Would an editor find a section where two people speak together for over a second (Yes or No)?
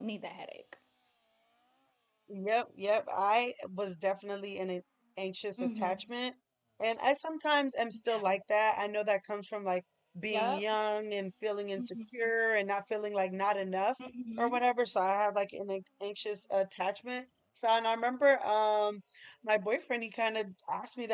No